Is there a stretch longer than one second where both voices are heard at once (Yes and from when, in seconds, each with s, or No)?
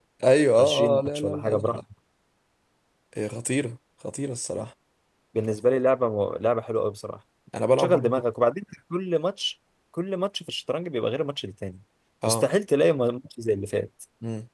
Yes, from 0.6 s